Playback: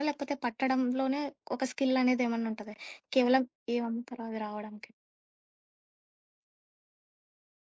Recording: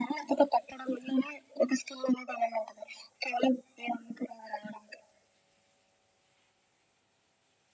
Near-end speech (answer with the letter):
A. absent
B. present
A